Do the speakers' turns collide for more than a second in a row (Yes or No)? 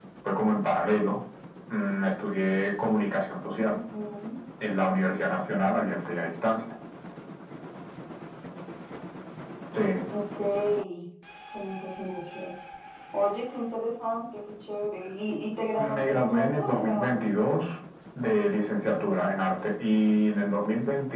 Yes